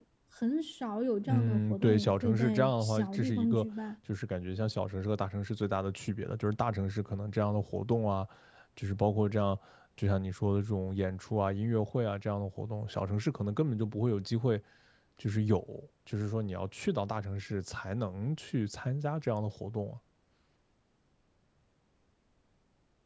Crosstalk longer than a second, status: present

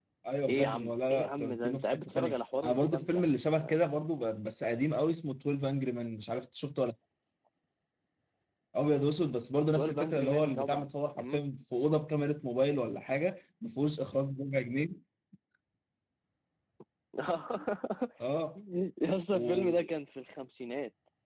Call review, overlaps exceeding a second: present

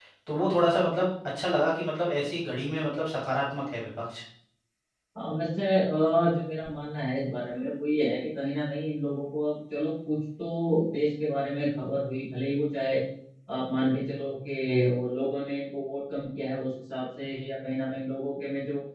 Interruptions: none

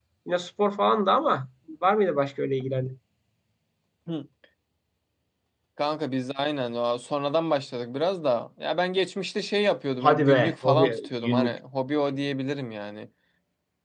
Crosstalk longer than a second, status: present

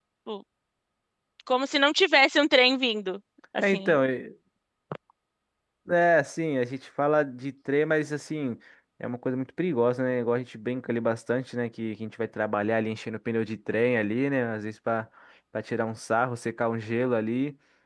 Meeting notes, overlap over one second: none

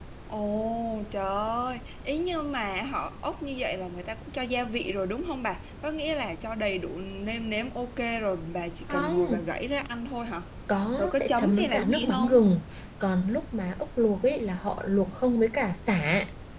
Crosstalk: present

